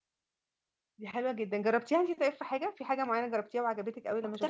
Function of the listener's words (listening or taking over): taking over